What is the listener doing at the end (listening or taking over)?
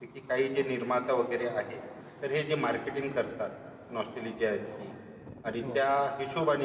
listening